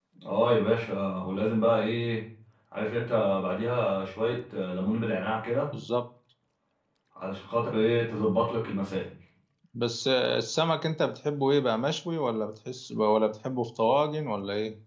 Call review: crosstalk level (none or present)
none